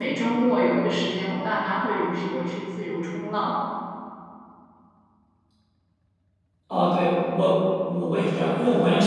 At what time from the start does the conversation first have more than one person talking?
none

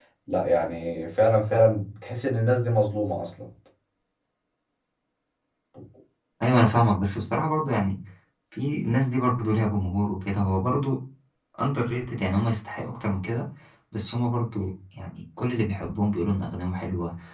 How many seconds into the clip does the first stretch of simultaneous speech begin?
none

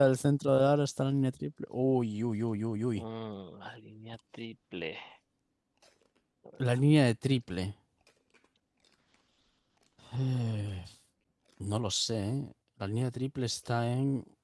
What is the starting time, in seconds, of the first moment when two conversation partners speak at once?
none

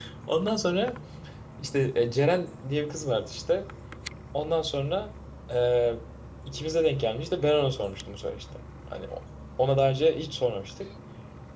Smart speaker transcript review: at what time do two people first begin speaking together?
none

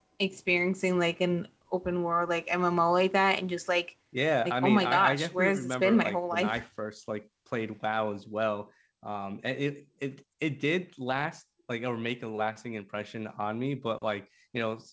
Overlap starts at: 4.4 s

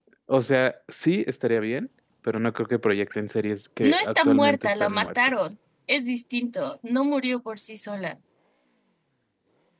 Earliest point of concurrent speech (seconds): 3.8 s

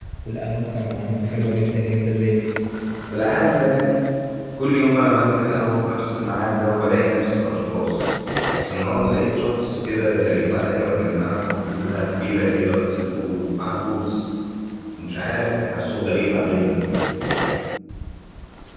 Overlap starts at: none

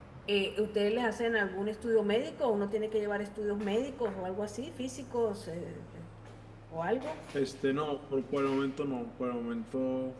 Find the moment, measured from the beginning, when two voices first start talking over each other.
none

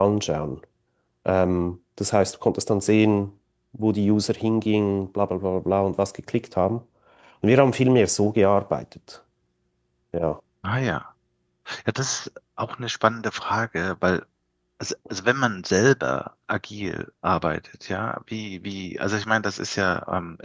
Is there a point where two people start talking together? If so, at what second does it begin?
none

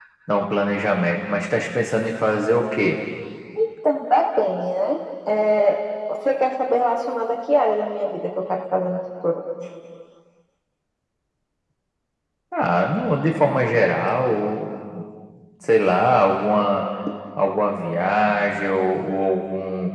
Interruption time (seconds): none

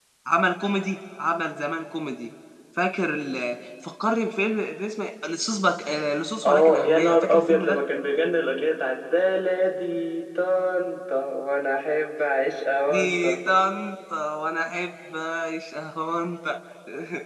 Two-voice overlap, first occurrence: 6.5 s

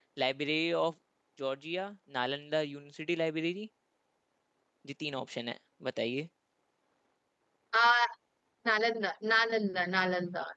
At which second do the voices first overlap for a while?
none

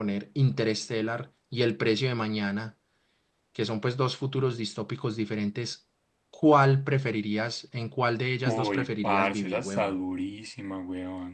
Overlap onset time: 8.4 s

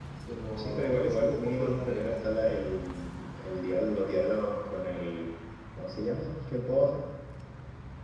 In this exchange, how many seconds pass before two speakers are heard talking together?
0.5 s

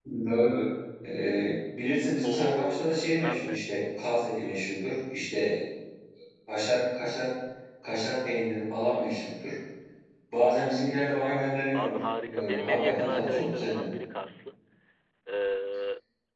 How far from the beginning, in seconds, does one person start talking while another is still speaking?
2.2 s

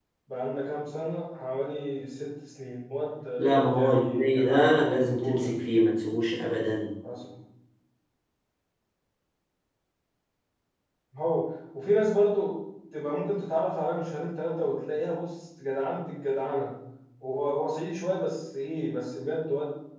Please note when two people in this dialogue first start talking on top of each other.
3.4 s

